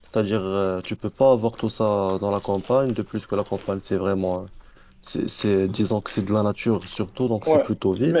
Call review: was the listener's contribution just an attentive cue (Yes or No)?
No